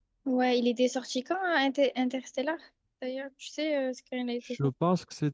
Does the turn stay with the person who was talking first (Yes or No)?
No